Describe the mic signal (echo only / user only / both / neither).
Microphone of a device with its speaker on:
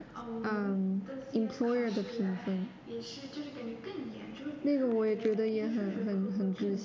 both